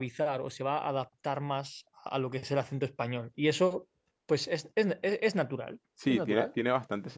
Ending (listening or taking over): taking over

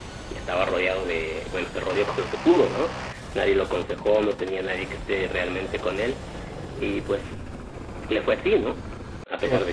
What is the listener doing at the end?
listening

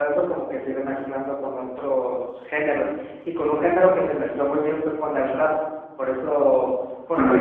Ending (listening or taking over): listening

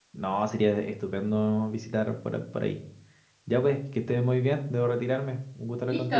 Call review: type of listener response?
taking over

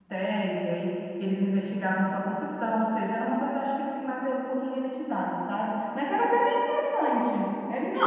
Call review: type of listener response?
taking over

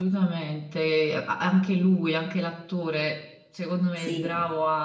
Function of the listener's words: listening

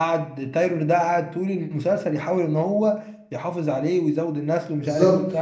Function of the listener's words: taking over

